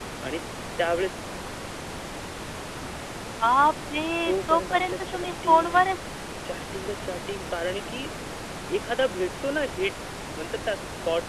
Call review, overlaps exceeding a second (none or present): present